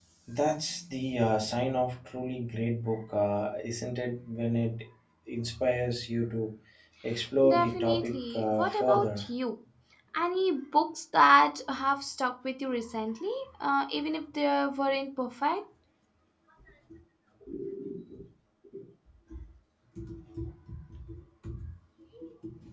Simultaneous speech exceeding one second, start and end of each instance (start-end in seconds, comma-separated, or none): 7.5-9.2